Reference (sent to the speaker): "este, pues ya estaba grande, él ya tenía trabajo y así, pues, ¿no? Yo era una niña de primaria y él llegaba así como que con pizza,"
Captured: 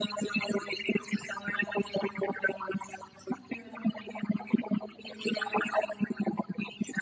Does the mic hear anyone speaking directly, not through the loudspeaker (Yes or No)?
No